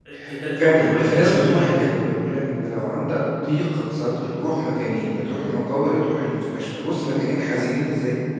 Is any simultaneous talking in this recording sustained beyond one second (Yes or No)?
Yes